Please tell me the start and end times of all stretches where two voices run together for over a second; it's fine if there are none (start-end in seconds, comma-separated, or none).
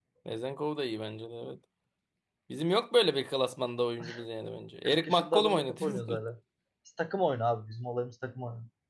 4.8-6.2